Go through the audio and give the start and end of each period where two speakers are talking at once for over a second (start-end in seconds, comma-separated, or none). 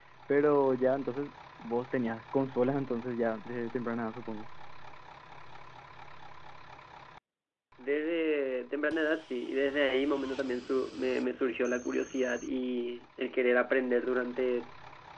none